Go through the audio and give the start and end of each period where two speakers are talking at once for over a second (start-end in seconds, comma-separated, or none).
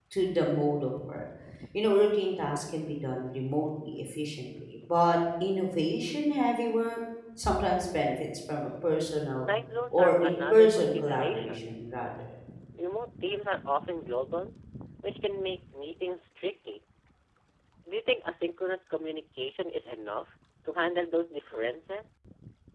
9.9-11.6